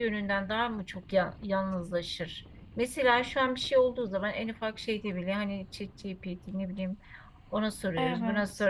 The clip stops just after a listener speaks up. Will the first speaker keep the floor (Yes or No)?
Yes